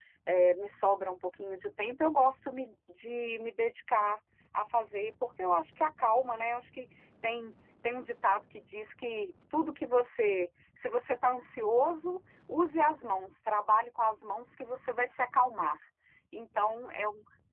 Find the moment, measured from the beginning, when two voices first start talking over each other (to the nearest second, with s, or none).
none